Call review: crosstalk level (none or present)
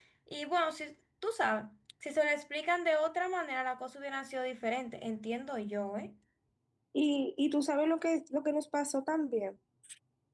none